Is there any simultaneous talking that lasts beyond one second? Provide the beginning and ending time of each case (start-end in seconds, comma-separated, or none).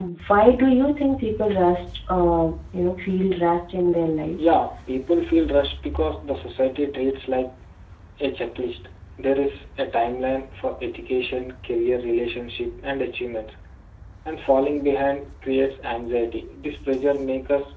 none